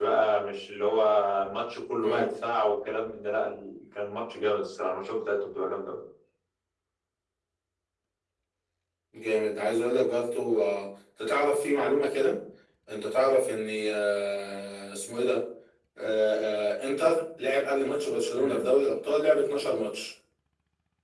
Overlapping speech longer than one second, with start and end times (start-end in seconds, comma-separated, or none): none